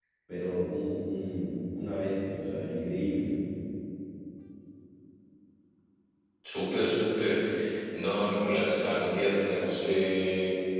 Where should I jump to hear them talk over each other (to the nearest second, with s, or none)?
none